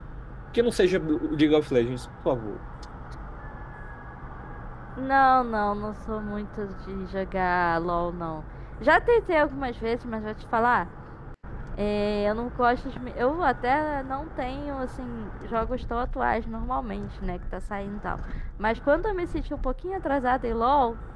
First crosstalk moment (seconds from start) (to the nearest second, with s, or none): none